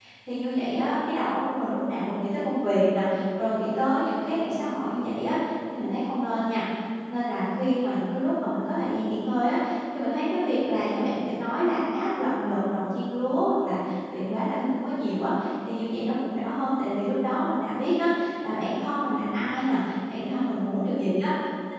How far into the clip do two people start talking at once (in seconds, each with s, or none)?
none